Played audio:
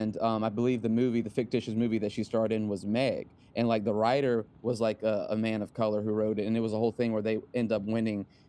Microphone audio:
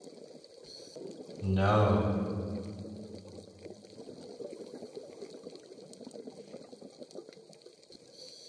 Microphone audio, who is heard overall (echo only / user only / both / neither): user only